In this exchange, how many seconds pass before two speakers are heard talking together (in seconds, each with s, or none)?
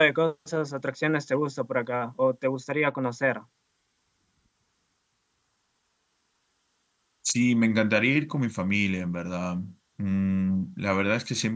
none